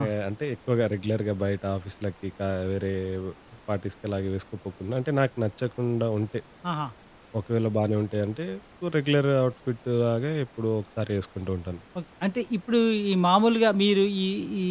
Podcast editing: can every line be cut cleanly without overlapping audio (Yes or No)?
Yes